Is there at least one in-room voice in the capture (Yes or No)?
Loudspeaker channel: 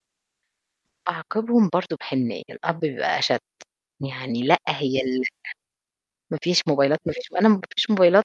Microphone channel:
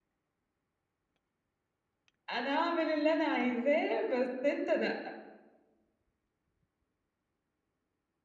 Yes